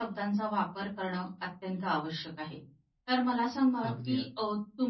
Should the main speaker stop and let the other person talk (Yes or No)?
No